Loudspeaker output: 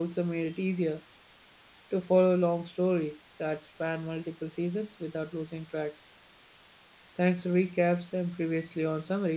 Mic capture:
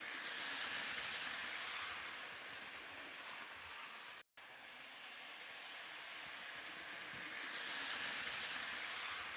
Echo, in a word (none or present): none